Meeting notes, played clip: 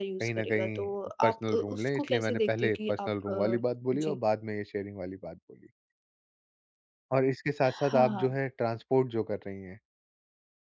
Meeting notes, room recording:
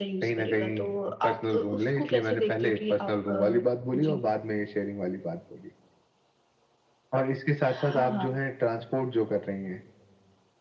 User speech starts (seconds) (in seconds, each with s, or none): none